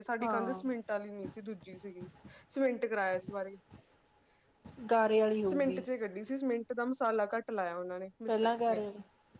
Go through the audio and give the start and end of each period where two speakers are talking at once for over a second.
none

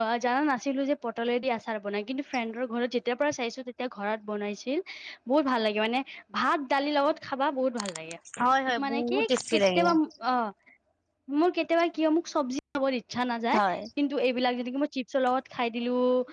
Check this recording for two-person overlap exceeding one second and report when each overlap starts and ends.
none

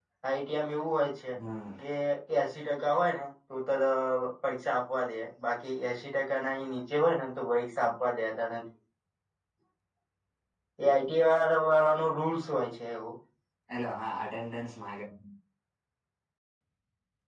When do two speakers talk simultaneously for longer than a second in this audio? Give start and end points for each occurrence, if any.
none

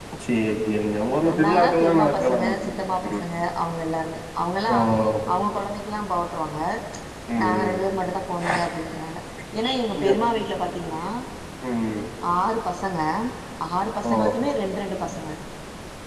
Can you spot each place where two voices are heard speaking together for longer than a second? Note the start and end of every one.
1.3-3.2

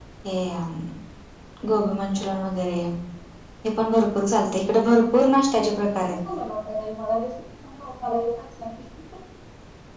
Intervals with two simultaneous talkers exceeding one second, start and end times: 4.8-6.0

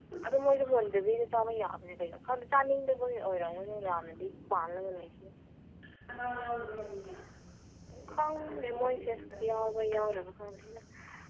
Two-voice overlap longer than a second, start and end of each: 8.1-9.7

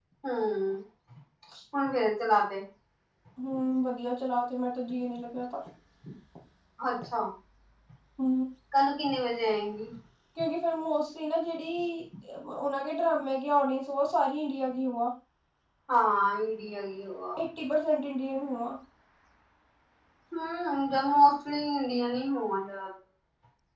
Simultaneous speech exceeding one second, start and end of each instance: none

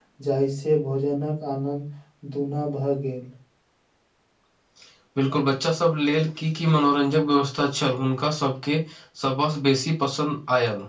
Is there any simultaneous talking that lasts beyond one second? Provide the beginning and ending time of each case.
none

